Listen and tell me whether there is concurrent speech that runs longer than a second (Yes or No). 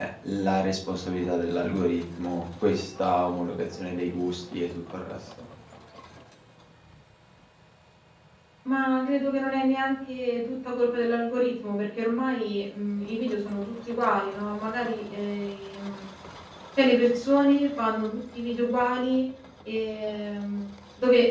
No